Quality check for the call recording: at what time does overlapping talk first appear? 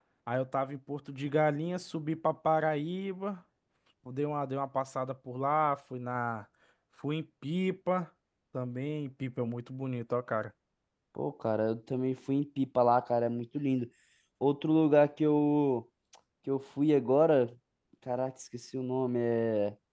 none

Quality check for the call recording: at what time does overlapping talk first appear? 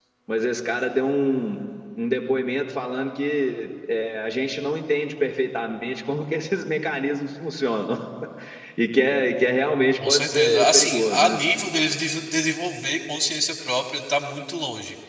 10.0 s

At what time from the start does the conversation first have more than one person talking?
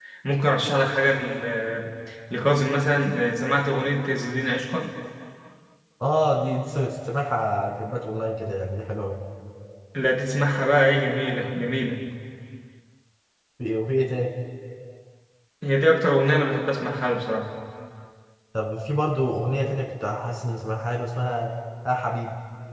none

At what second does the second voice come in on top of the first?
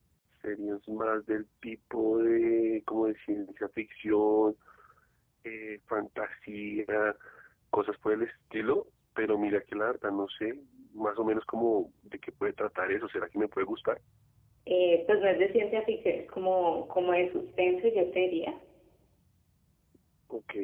none

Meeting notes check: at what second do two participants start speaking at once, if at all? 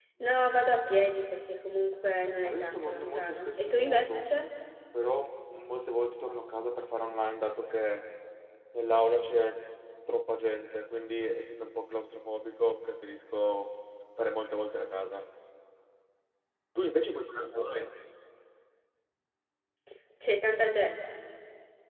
2.4 s

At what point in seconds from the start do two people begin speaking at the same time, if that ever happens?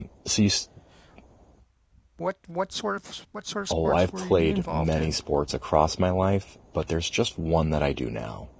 3.7 s

